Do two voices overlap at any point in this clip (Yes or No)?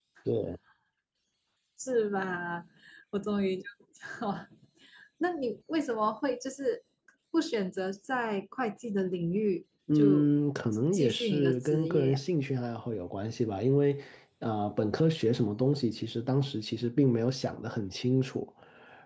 Yes